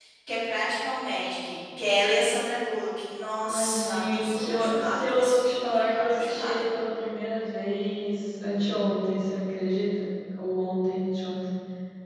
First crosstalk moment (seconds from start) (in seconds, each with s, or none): 3.4 s